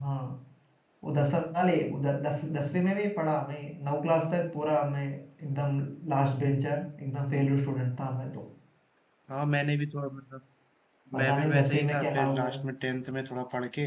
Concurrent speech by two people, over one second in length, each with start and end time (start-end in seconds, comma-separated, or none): 11.2-12.5